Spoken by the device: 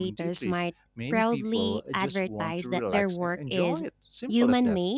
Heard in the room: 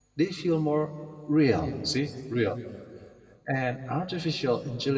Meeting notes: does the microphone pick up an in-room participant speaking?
Yes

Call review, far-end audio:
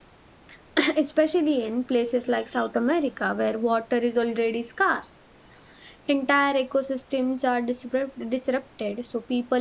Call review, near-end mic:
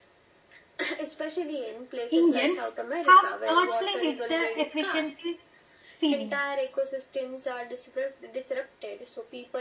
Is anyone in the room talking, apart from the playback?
Yes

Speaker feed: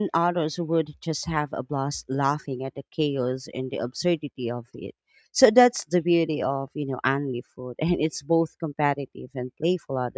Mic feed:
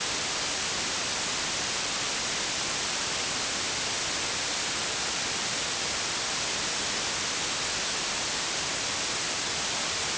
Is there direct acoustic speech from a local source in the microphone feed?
No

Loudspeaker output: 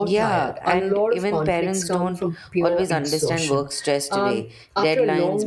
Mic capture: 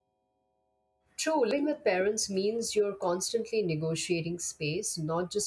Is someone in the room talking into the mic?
Yes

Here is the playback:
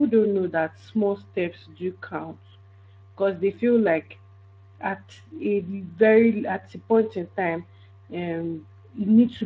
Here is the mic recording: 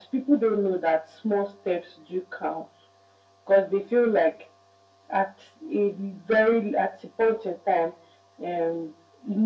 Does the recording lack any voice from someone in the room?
Yes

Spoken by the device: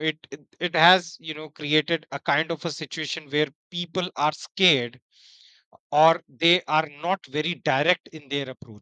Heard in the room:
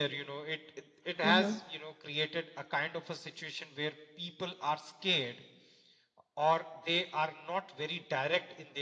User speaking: Yes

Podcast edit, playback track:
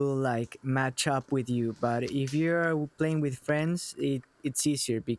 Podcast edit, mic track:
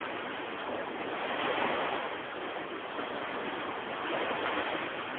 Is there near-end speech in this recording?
No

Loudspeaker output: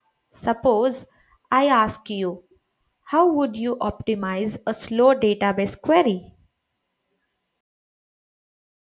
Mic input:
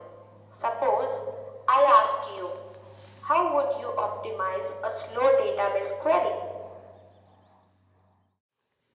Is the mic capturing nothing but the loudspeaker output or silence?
Yes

